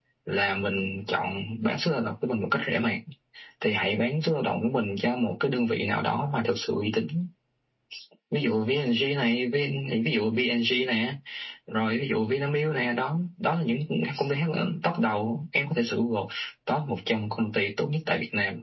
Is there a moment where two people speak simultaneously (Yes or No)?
No